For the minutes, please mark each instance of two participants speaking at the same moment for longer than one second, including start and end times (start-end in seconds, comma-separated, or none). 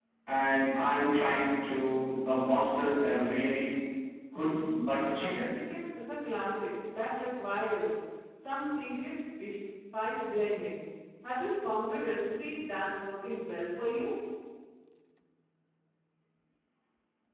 none